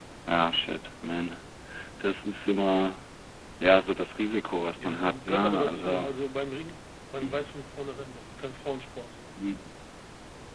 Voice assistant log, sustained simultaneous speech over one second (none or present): present